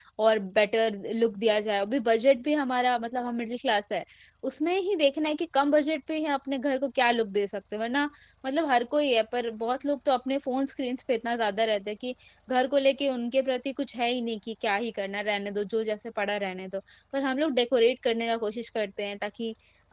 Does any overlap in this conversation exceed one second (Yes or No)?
No